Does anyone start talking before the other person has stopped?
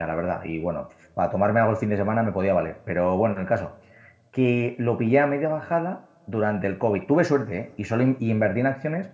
No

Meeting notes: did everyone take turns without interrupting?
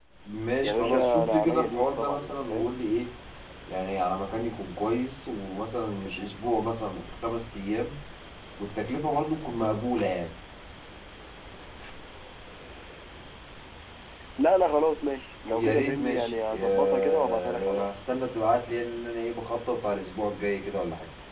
No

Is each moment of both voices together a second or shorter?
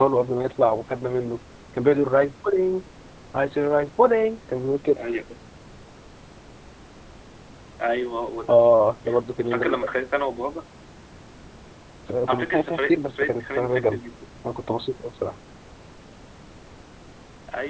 No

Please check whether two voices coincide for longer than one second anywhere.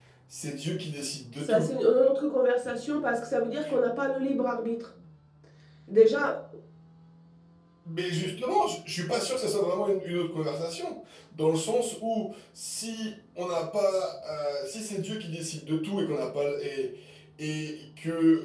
No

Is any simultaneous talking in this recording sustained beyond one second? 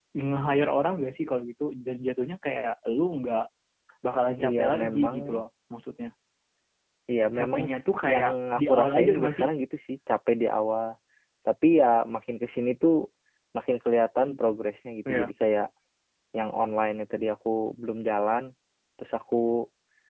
Yes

